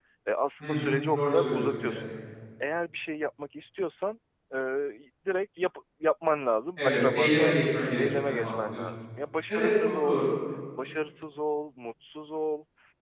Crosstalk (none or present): present